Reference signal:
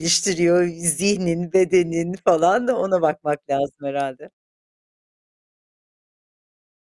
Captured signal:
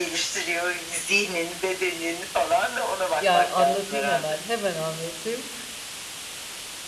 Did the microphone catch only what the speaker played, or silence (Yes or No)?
No